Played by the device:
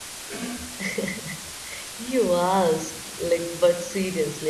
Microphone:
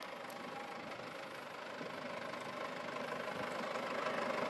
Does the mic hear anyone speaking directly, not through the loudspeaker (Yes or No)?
No